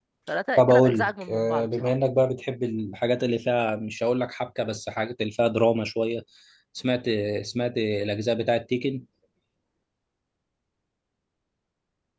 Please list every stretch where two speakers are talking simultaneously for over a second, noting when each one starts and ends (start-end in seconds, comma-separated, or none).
0.6-1.9